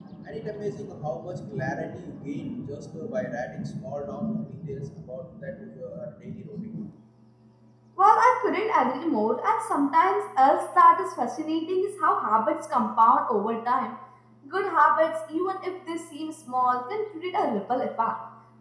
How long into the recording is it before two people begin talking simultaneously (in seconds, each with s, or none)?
none